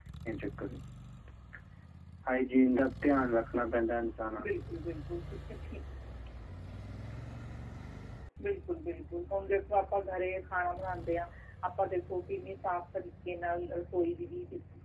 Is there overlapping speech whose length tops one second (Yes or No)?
No